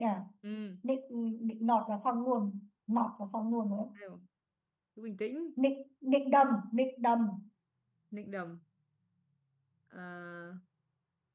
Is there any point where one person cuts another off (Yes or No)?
No